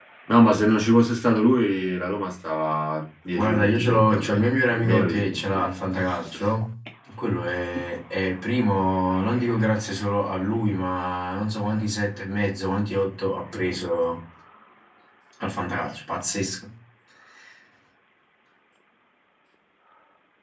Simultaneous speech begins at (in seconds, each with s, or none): 3.3 s